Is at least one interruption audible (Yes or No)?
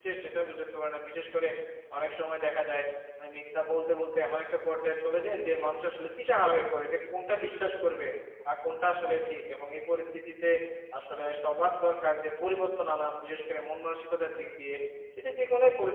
No